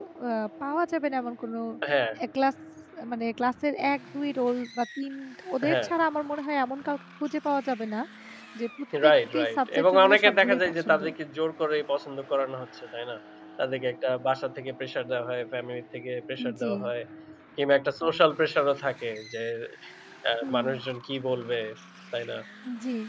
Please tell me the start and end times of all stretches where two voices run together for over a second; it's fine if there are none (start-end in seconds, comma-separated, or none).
9.1-11.0